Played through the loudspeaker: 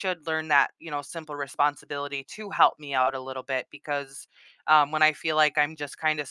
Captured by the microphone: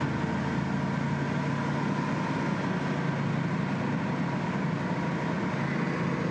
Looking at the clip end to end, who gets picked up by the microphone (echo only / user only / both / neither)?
neither